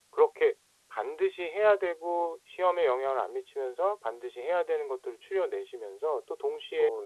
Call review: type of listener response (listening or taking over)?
listening